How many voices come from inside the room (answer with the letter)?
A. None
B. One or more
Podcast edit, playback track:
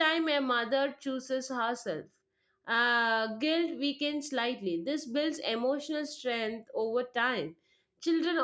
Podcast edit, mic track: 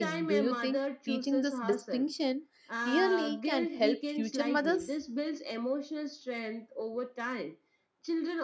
B